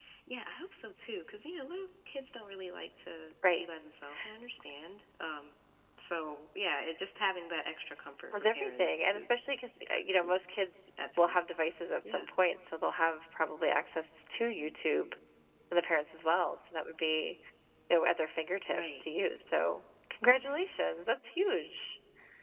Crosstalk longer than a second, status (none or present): present